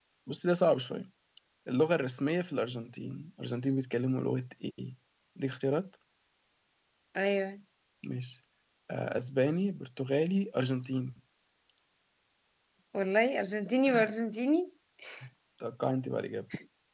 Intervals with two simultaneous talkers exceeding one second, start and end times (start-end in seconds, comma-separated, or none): none